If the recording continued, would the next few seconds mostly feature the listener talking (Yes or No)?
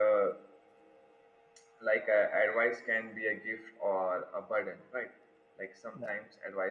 No